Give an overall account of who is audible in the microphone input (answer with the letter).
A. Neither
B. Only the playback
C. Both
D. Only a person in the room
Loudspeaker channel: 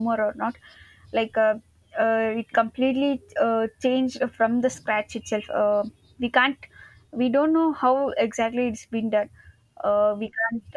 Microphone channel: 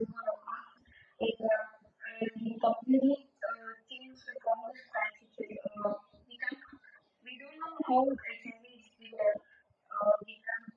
B